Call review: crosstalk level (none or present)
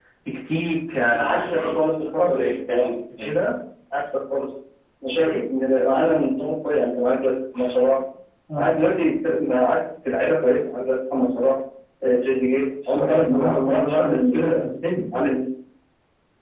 present